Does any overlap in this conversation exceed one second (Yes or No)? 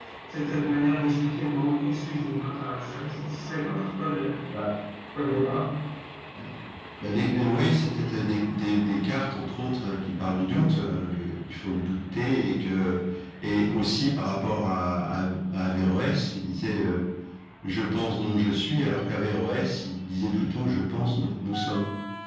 No